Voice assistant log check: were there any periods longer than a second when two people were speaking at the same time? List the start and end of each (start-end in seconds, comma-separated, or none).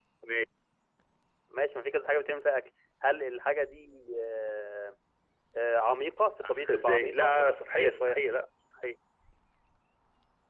6.4-8.2